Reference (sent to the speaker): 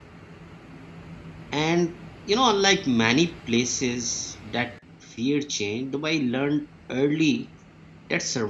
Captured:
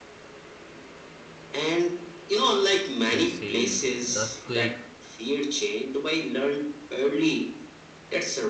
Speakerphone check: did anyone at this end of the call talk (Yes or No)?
Yes